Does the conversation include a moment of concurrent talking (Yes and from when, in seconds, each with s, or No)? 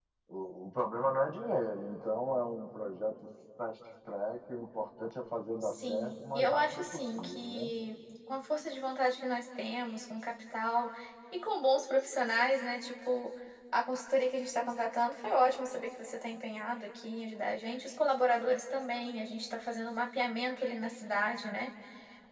Yes, from 5.6 s